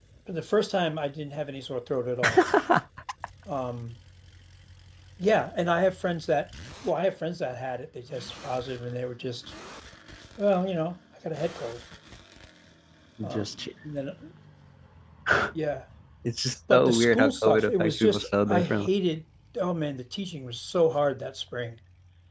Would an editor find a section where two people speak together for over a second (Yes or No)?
Yes